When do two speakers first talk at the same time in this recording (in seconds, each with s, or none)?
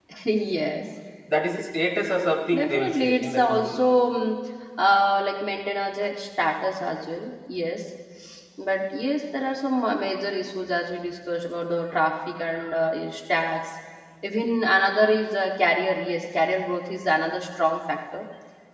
2.5 s